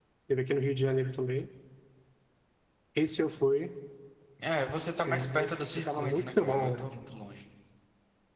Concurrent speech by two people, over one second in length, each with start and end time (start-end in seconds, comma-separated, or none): 5.0-6.9